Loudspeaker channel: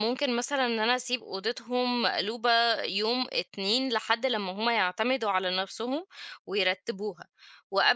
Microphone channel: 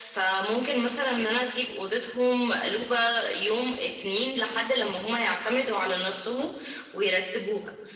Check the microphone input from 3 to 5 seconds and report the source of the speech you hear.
echo only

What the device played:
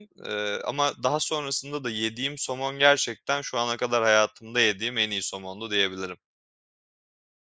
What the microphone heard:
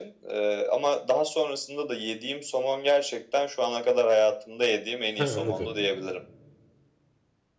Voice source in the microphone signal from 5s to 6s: both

